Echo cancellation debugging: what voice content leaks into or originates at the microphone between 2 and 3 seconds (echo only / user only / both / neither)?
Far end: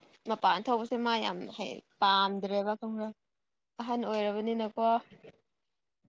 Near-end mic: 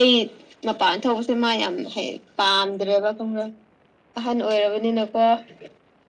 echo only